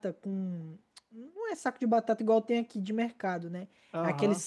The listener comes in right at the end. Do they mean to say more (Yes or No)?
No